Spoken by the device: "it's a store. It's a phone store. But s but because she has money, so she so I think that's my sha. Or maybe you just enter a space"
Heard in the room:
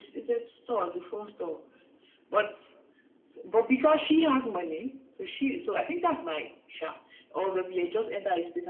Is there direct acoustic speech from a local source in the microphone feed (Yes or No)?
No